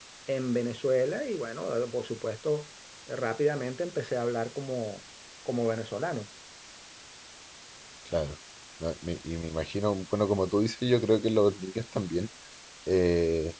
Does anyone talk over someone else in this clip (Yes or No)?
No